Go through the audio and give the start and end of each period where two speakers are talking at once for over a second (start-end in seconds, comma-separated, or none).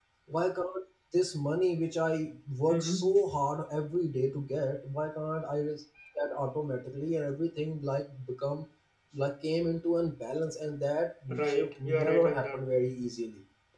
11.3-12.6